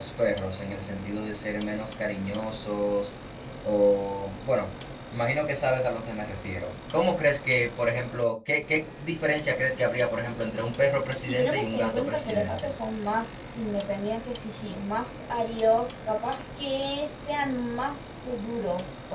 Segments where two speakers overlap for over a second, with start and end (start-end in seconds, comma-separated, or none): 11.1-12.7